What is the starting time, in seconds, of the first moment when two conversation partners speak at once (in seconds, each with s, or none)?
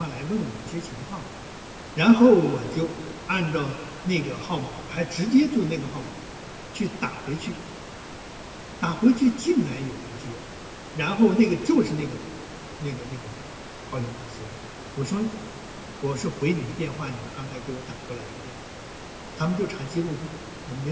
none